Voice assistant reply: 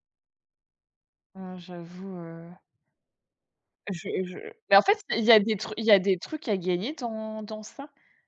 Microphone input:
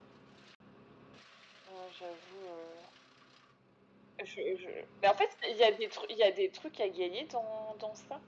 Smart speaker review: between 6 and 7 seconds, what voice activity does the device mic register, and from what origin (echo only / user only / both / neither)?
echo only